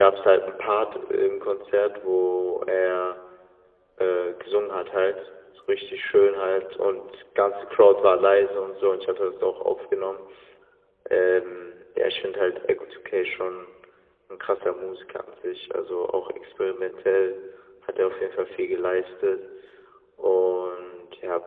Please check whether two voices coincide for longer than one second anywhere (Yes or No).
No